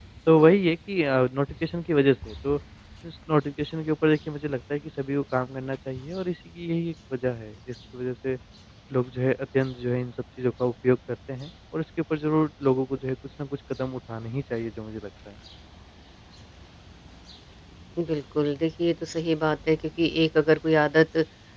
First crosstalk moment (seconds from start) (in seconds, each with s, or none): none